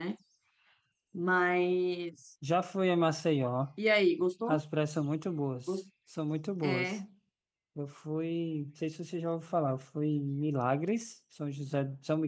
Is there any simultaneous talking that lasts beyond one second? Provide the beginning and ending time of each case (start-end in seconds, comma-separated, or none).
none